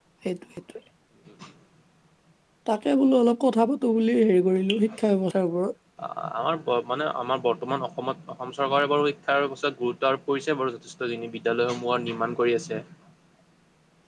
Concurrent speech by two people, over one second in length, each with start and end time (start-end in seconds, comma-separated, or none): none